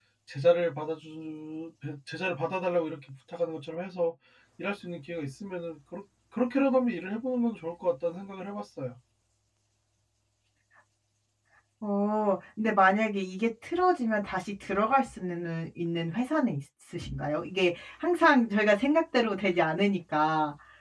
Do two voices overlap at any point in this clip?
No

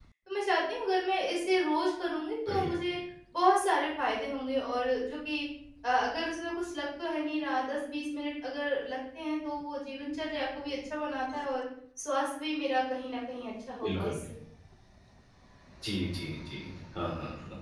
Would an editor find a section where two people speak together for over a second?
No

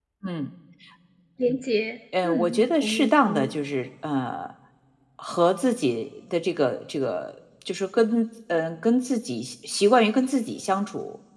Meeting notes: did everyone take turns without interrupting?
No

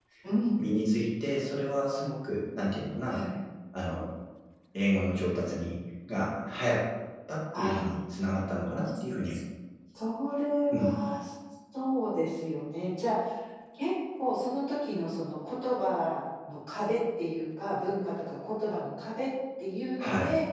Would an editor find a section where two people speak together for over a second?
No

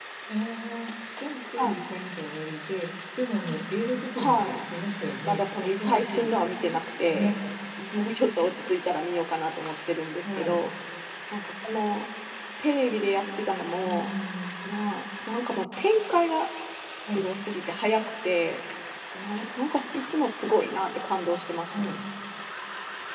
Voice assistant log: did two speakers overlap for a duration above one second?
Yes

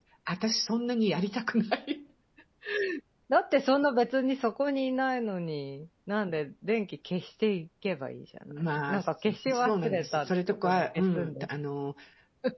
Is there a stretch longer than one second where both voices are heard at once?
Yes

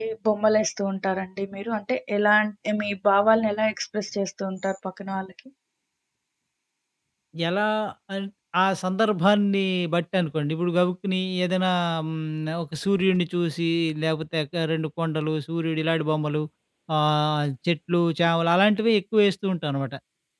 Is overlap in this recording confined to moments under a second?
Yes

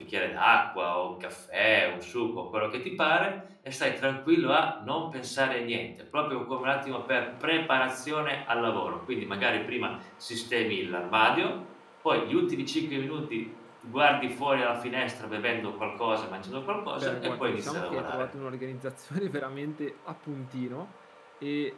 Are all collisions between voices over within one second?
No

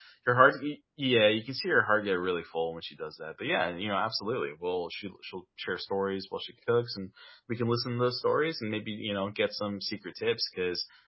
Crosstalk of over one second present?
No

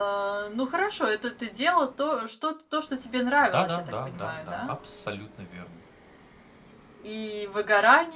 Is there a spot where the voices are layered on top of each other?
Yes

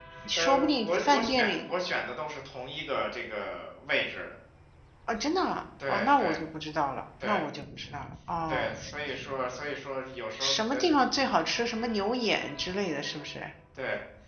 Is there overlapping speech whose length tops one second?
Yes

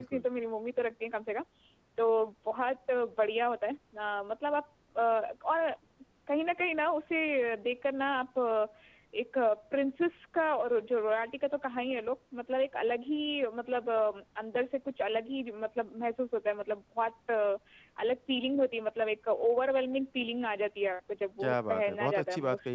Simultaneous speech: Yes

